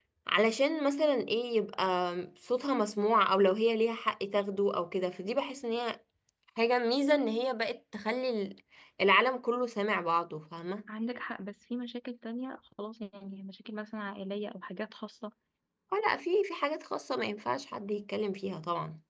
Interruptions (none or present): none